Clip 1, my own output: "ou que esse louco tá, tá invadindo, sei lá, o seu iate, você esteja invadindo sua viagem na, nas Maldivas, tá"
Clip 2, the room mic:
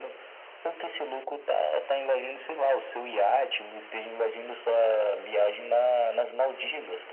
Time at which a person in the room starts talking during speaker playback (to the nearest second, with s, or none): none